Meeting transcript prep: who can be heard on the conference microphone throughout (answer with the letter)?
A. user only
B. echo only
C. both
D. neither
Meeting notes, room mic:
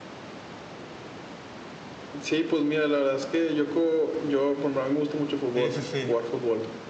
C